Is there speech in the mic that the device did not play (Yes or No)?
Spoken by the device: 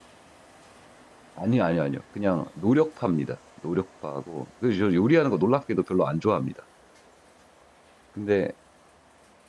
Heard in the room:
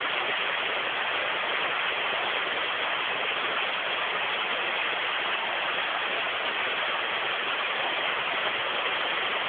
No